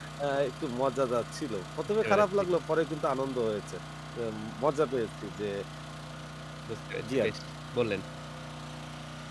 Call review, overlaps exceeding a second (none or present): none